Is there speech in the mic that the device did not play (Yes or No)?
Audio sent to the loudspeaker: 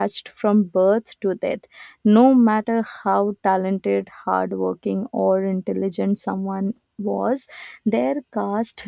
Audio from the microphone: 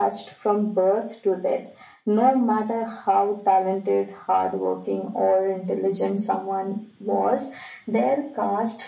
No